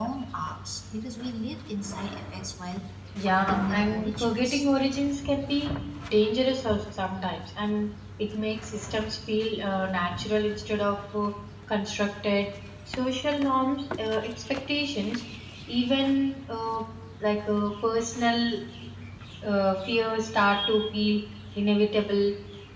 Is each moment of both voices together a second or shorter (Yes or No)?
No